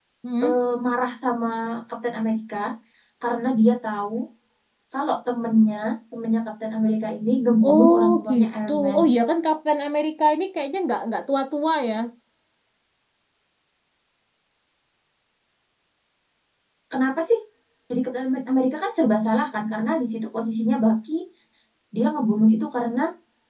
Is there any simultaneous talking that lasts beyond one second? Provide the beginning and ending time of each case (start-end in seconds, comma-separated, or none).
7.7-9.0